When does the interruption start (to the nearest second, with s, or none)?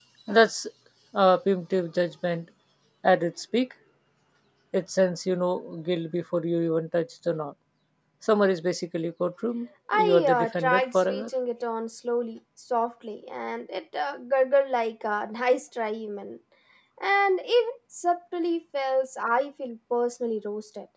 10 s